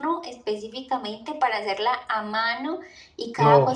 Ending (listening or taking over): listening